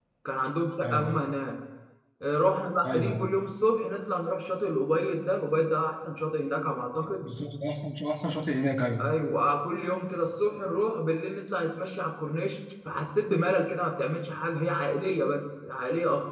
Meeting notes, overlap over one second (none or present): none